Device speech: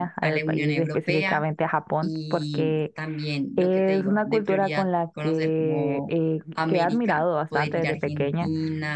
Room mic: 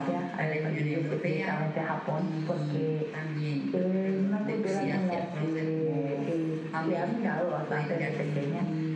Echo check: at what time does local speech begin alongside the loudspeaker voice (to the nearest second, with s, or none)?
5 s